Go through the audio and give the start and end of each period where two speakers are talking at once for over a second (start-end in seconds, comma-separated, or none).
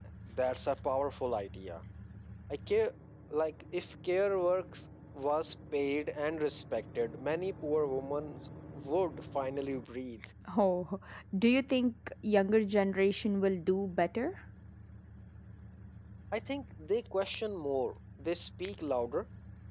none